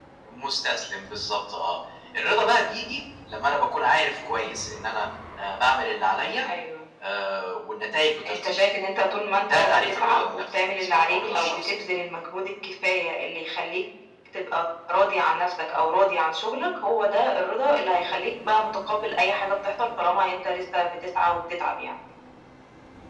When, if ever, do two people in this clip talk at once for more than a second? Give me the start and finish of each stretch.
9.5-11.8

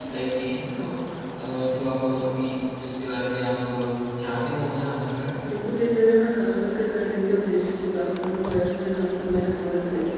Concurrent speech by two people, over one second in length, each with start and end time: none

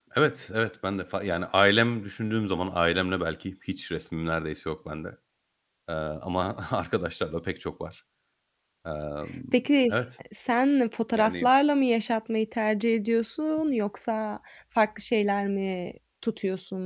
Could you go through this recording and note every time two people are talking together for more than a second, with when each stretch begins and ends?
none

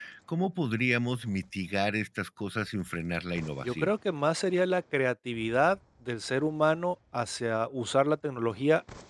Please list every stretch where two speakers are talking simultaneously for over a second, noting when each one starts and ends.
none

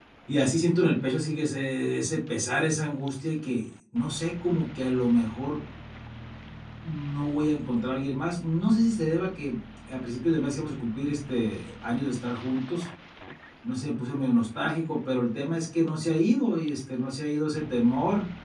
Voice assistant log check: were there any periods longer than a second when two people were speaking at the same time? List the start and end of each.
none

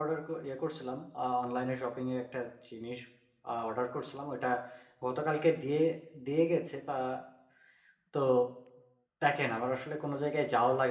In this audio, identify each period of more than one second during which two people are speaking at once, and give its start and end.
none

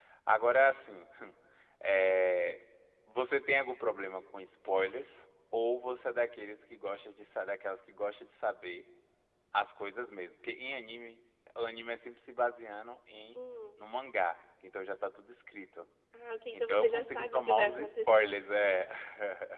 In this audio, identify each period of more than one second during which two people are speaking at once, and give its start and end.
16.5-18.4

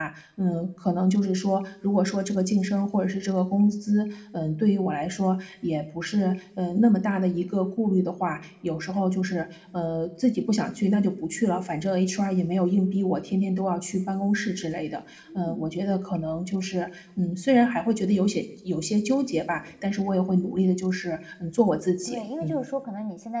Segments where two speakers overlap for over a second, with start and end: none

